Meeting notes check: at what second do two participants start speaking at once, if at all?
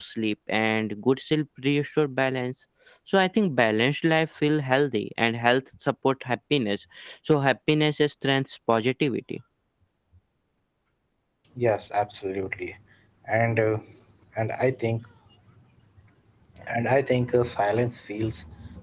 none

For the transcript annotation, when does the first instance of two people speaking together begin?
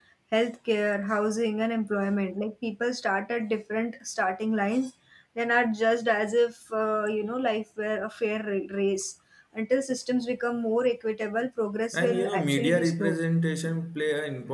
11.9 s

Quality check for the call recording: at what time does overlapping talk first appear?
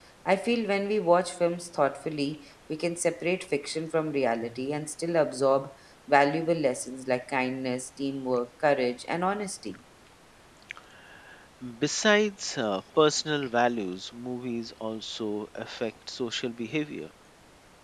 none

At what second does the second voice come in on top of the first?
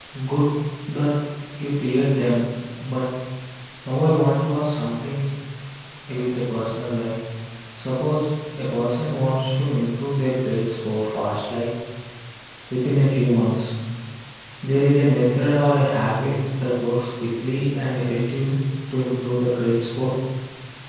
none

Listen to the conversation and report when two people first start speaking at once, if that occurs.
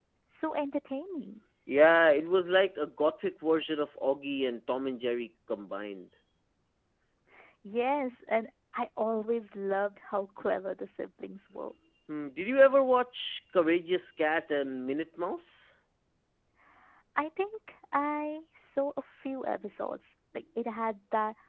none

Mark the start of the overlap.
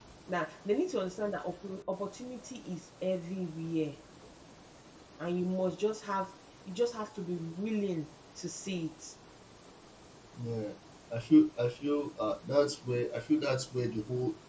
none

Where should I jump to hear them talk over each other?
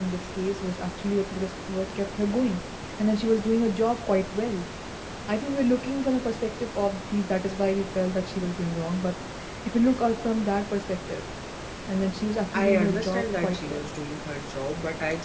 12.5 s

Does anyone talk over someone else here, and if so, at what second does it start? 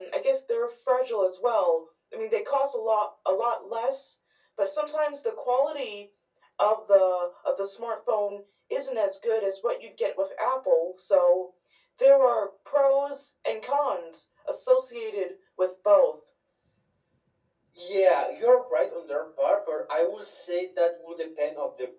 none

